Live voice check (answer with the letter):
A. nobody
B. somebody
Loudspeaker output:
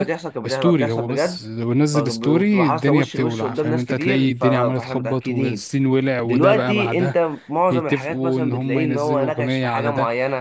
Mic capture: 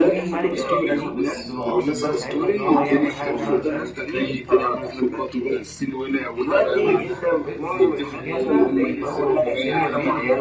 B